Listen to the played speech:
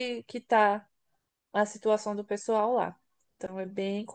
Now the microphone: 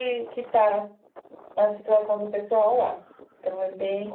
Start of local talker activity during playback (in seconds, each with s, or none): none